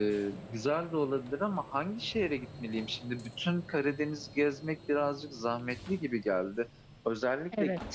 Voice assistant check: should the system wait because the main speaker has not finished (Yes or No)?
Yes